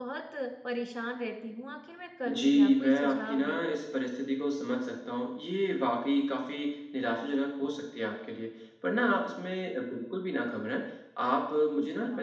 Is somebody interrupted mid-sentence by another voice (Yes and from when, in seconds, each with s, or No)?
Yes, from 2.3 s